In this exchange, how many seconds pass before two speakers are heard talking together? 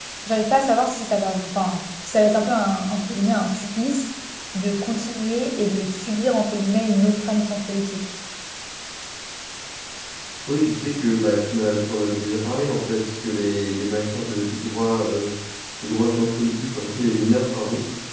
none

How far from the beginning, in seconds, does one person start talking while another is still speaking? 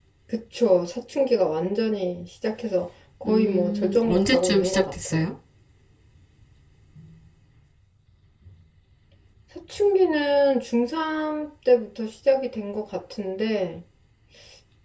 3.2 s

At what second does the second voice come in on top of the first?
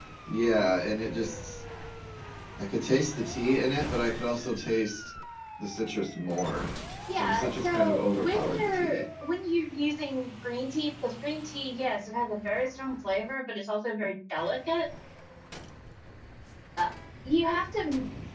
7.1 s

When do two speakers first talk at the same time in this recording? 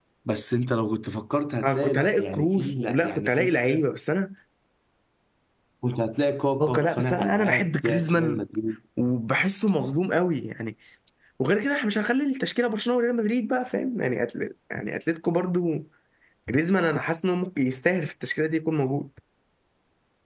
1.6 s

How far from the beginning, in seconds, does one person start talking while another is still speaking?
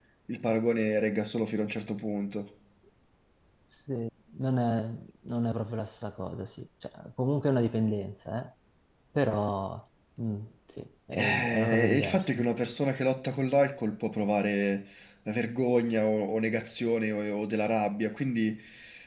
11.1 s

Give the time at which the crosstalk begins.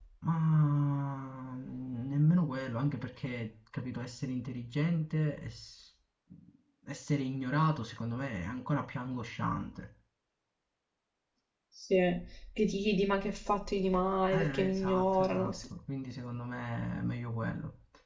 14.3 s

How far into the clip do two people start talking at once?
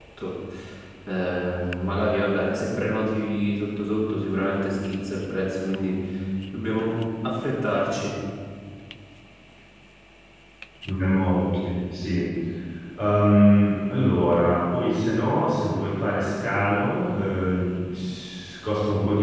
none

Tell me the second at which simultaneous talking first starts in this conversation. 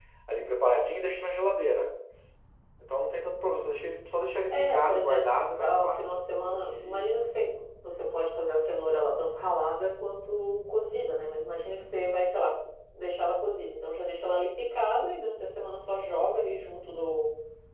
4.5 s

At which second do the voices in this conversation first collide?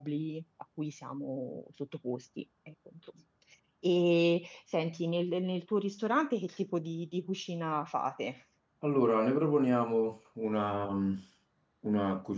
none

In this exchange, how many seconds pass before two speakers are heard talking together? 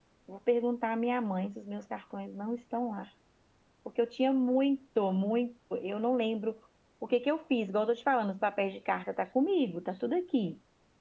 none

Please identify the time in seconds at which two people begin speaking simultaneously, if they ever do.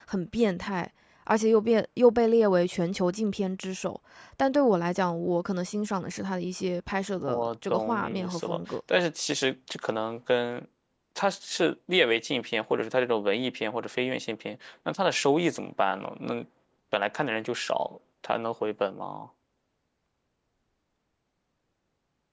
7.3 s

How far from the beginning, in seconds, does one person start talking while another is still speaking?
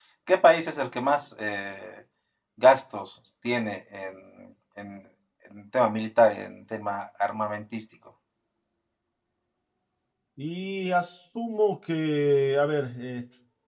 none

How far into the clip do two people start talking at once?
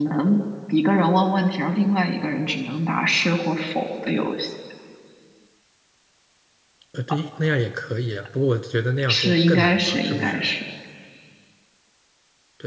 9.0 s

